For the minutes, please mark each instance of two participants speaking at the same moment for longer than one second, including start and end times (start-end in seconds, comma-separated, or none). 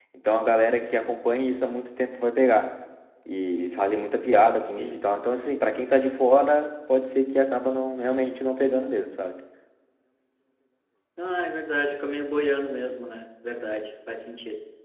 none